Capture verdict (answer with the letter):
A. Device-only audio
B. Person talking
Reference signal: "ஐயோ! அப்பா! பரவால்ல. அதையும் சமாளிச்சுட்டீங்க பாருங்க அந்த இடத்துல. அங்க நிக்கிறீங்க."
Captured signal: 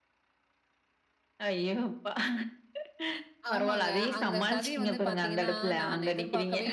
B